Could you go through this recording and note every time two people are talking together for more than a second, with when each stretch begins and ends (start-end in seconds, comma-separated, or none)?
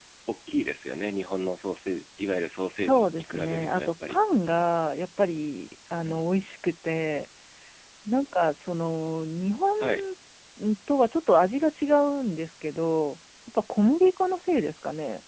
2.6-4.2